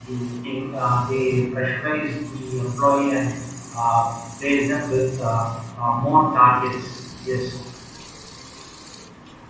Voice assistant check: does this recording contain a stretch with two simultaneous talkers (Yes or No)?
No